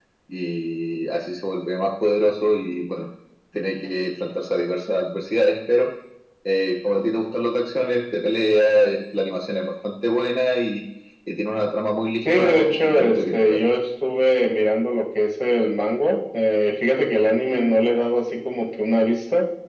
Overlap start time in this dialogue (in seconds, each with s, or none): 12.2 s